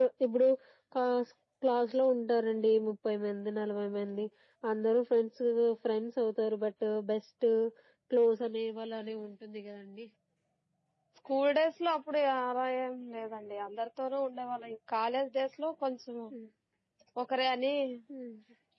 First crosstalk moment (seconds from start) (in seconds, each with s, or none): none